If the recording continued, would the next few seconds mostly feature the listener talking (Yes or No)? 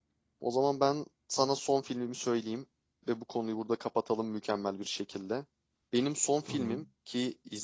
No